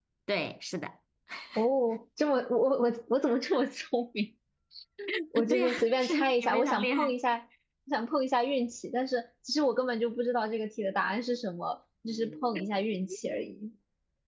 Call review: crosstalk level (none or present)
present